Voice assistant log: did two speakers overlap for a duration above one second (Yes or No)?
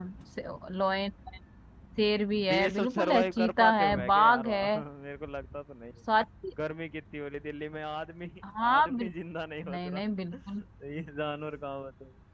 Yes